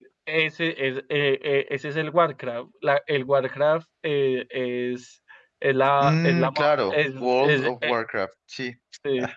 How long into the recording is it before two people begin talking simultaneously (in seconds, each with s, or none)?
6.0 s